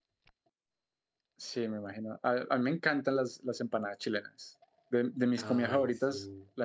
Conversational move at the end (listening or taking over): listening